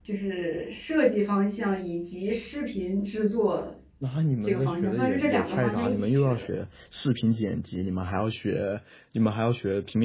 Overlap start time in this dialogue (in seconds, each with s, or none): 4.4 s